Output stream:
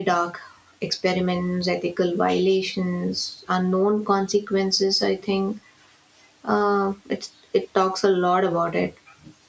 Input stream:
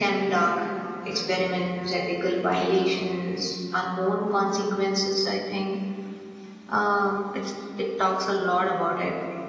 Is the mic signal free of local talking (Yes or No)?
Yes